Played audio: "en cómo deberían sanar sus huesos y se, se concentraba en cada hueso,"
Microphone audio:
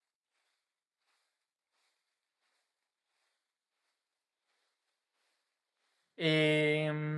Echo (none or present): none